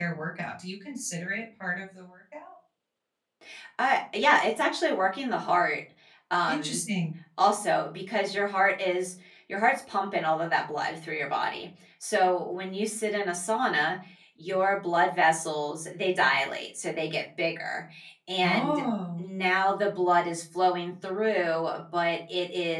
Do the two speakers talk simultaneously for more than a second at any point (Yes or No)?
No